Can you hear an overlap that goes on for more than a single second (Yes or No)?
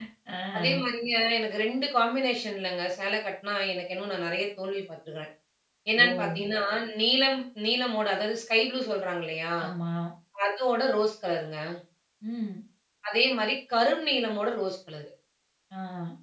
No